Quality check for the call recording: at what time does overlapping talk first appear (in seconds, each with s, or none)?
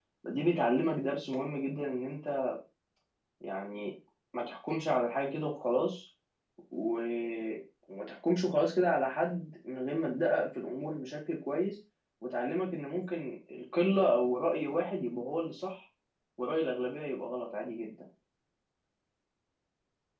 none